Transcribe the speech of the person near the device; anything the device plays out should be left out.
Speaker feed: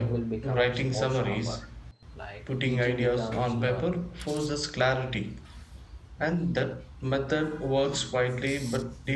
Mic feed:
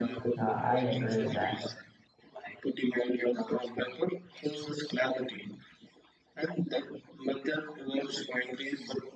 Uh, i agree with that

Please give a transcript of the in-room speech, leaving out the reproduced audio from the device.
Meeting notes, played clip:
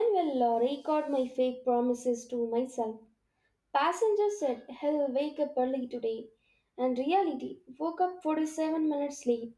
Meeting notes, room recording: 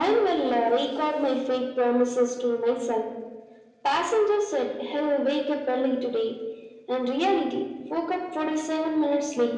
none

